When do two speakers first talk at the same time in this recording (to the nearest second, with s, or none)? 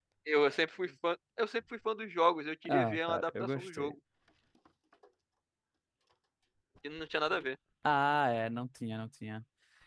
3 s